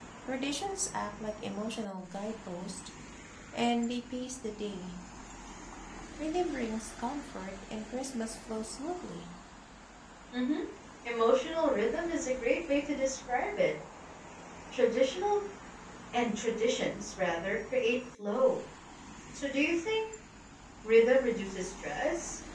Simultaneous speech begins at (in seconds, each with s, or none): none